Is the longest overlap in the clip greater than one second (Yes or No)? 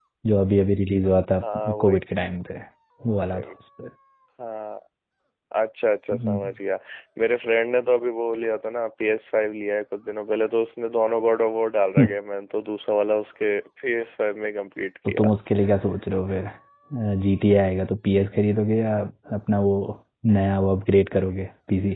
No